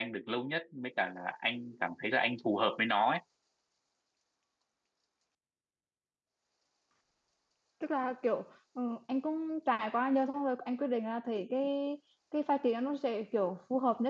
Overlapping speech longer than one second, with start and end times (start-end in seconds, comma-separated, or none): none